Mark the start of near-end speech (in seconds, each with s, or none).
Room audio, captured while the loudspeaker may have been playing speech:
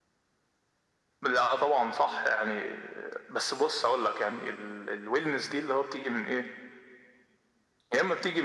none